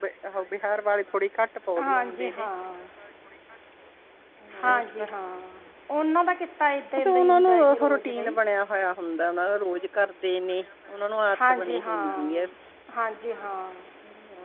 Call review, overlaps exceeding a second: present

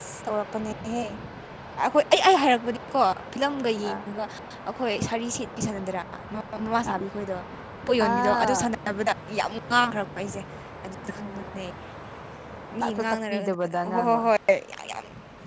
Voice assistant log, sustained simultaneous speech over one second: present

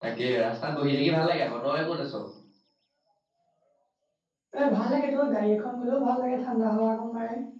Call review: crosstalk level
none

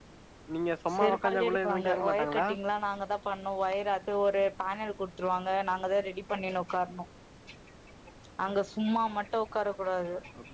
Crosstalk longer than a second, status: present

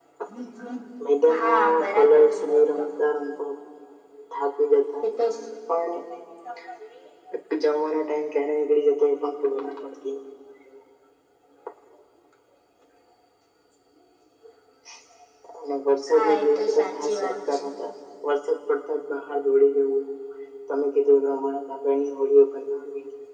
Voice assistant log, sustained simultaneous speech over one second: present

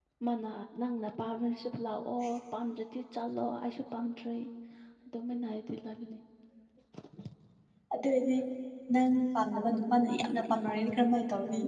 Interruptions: none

